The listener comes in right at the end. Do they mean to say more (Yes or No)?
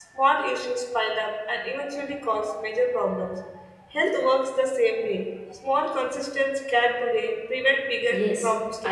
Yes